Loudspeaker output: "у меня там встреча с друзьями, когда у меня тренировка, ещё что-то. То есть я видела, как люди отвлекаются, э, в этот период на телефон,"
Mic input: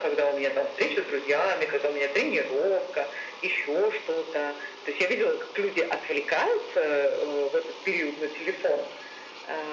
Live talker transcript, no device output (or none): none